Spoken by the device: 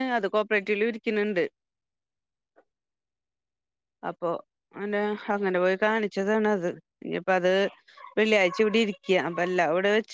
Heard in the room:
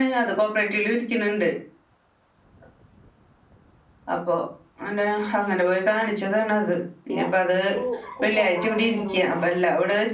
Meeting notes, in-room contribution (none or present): present